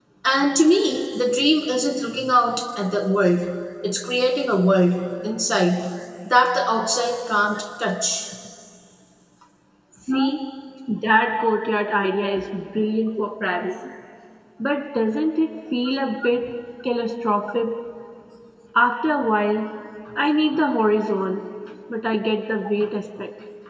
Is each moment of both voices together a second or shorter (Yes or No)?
Yes